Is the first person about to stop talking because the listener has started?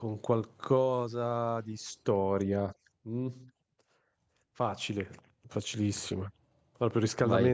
No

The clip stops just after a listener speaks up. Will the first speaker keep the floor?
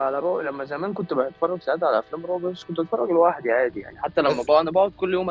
Yes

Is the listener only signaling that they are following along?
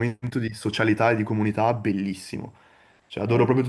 No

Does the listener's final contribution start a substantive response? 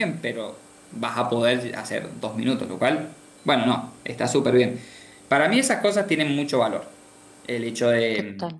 No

